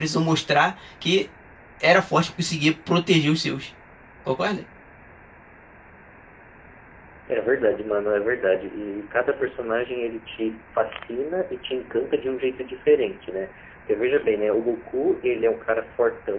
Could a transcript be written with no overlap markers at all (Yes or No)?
Yes